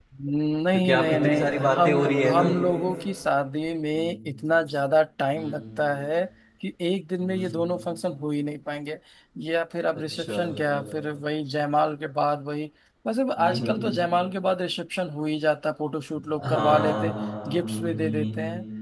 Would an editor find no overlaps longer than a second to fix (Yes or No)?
No